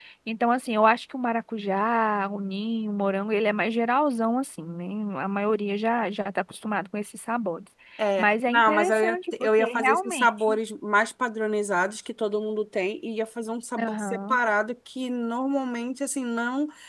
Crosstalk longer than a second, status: present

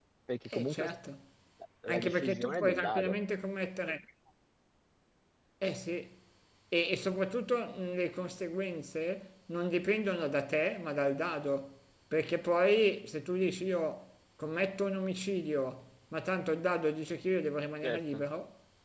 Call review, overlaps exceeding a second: present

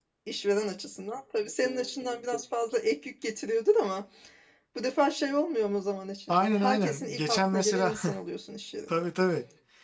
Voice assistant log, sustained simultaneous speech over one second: present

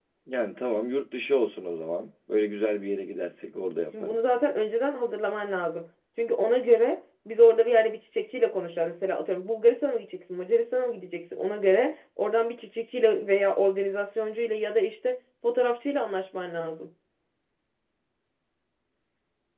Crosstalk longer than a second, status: none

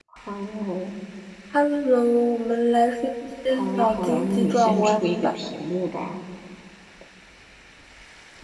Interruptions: present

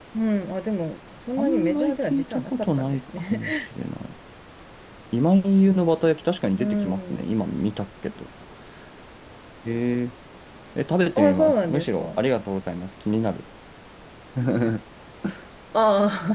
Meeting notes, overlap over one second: present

